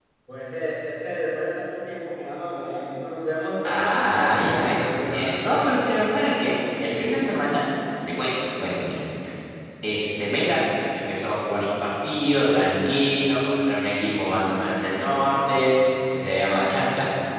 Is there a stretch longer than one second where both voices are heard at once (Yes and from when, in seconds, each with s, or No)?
Yes, from 3.6 s